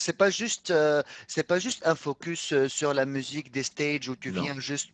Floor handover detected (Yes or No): No